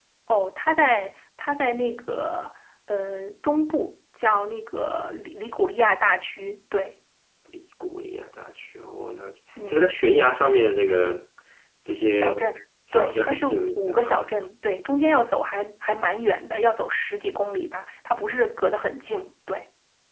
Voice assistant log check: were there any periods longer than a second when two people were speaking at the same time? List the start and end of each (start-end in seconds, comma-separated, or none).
12.9-14.2